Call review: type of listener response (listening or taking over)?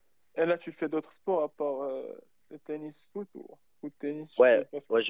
taking over